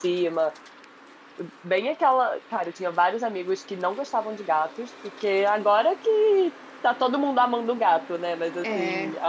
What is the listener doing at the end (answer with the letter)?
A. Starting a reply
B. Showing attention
B